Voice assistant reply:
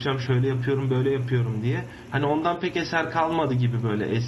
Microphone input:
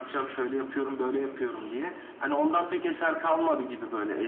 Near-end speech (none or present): none